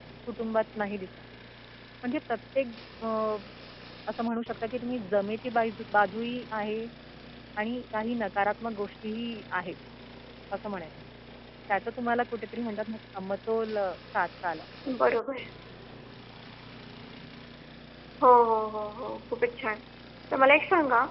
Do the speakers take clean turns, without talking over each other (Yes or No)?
Yes